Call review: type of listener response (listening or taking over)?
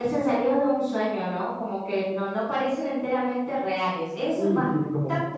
taking over